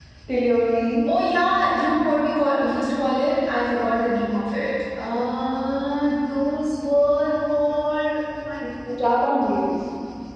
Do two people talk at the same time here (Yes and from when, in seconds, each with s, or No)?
No